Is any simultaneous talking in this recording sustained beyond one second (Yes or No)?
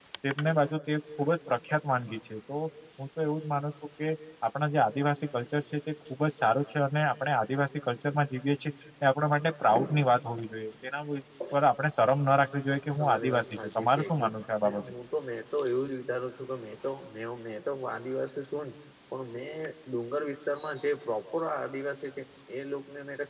Yes